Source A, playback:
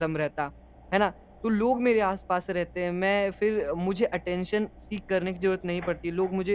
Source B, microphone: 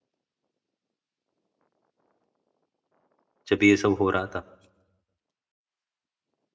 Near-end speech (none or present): present